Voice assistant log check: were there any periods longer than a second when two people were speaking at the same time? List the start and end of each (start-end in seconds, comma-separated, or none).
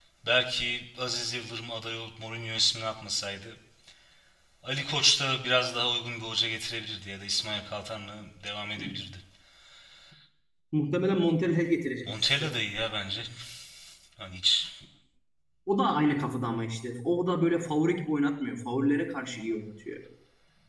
none